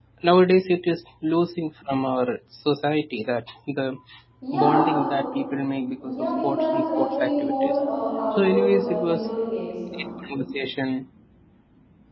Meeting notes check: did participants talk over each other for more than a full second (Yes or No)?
Yes